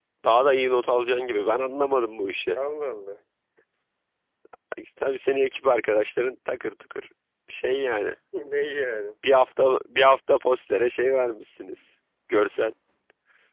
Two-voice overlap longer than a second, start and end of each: none

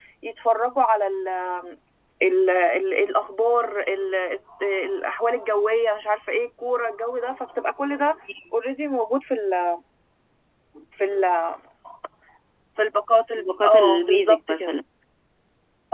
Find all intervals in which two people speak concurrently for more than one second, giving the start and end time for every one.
13.4-14.8

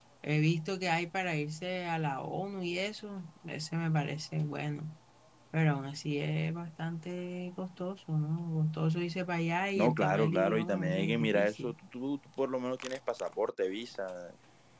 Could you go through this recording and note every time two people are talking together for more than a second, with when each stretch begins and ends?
9.8-11.7

